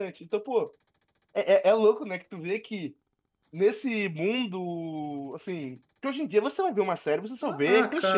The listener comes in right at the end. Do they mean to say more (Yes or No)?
Yes